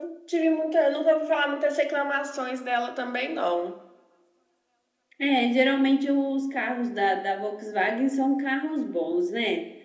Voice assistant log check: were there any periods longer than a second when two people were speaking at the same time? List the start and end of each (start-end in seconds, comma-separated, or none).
none